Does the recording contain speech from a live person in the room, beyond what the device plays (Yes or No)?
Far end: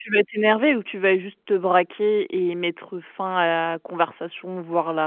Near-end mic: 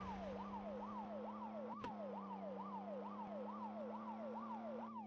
No